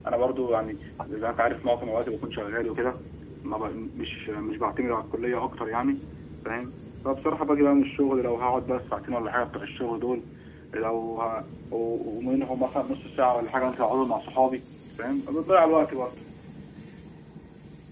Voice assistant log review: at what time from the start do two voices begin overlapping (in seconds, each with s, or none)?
none